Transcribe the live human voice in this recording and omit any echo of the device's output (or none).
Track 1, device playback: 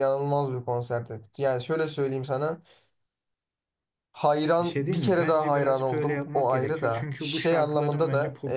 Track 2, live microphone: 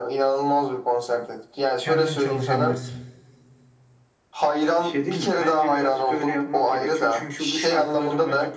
kendin çalışabilirsin.